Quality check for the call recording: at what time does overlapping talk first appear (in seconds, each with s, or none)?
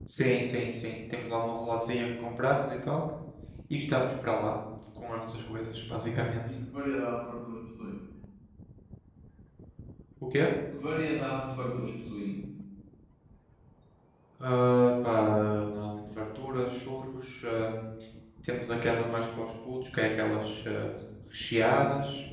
none